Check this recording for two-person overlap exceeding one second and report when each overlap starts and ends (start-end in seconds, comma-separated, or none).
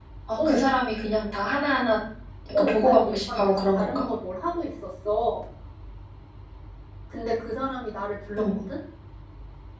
2.5-4.1